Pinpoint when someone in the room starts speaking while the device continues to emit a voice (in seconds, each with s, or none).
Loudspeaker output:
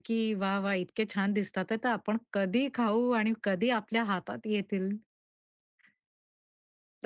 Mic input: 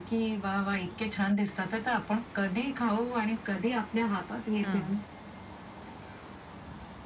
4.6 s